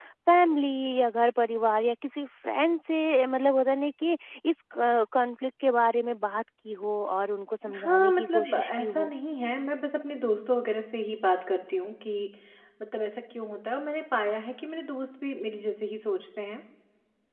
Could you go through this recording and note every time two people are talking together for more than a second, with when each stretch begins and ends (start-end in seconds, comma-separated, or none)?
7.8-9.1